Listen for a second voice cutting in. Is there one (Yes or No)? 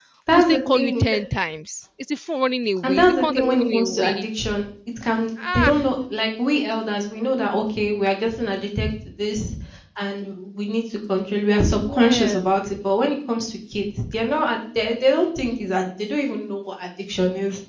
Yes